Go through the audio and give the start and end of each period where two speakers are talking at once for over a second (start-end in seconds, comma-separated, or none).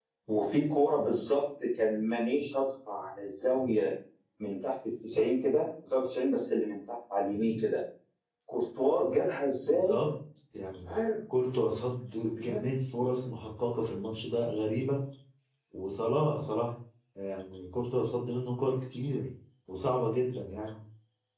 none